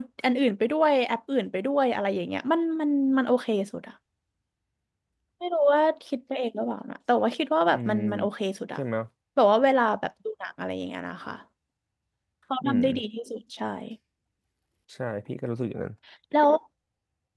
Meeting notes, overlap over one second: none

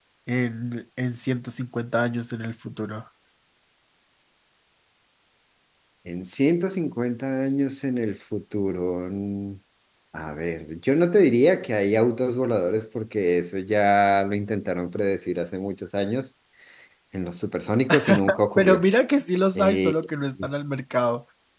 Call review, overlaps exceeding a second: none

